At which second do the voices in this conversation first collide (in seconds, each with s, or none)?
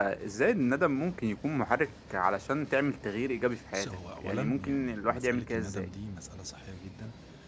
3.7 s